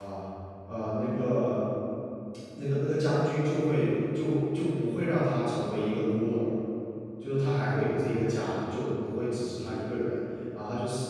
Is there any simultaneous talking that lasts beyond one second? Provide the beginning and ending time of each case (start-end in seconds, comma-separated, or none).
none